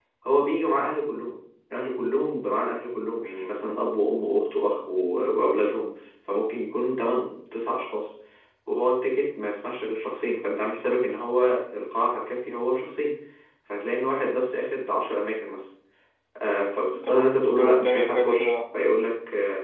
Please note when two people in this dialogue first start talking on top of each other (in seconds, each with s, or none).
17.0 s